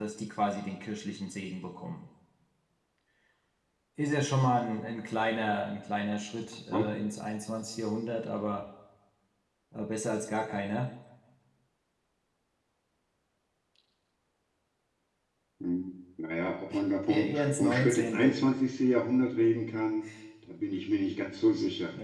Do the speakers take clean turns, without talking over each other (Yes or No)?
No